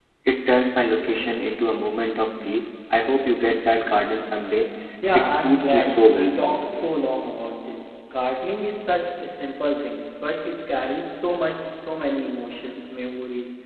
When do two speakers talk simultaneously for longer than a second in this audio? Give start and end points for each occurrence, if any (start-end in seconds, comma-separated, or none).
5.1-6.3